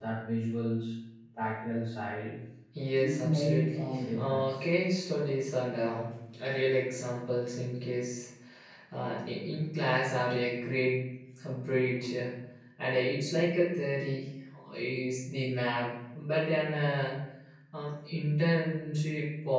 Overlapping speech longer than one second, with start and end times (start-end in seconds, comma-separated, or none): 3.0-4.6